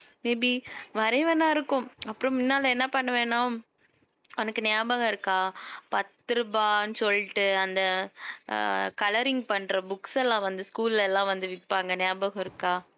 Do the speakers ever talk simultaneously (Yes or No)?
No